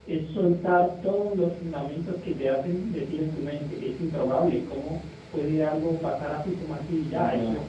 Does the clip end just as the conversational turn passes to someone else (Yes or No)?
Yes